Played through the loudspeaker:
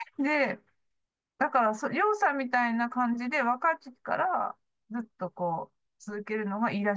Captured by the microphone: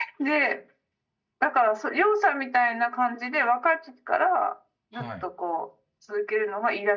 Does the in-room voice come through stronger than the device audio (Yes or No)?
No